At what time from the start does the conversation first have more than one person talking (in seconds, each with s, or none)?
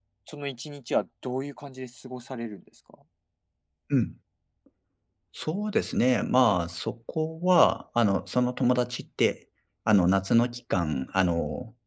none